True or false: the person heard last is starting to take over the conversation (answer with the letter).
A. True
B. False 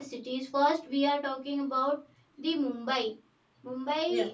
B